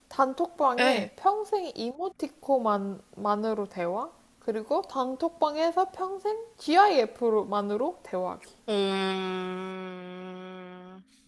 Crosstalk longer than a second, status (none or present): none